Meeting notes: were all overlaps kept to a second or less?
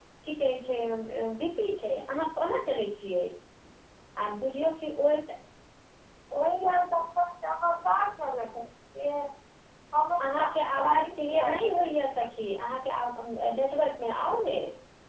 No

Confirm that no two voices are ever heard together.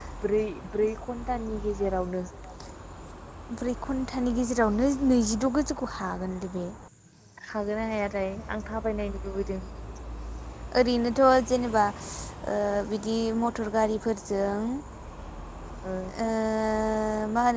Yes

